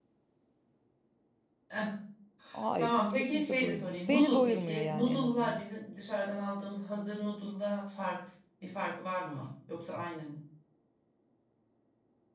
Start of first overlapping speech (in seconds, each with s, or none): 2.8 s